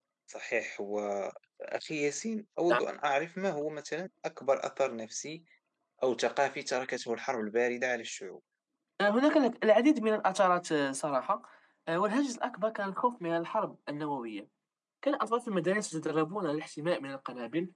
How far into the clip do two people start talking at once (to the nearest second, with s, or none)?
none